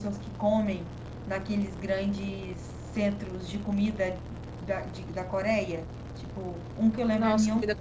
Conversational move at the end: taking over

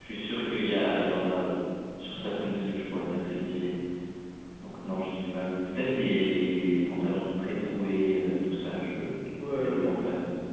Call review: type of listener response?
taking over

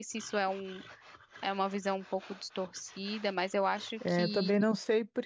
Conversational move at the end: taking over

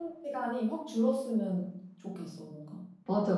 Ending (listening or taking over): taking over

